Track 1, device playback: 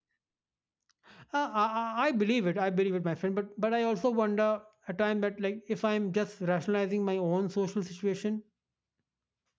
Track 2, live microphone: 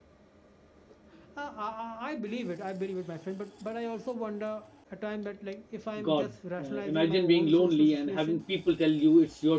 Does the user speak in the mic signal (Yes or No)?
Yes